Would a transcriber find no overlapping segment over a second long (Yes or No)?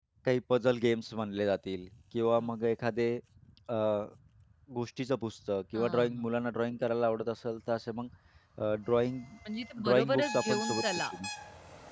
No